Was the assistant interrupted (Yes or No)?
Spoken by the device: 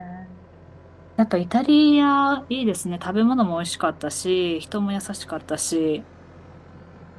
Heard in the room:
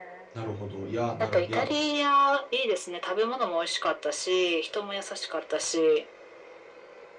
Yes